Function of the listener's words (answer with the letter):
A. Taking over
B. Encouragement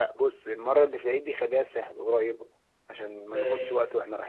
B